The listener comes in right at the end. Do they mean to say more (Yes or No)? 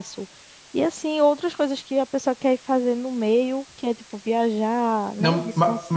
Yes